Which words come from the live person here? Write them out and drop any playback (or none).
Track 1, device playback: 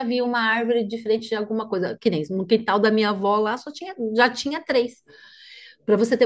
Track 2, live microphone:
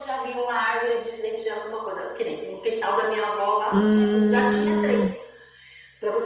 Hum,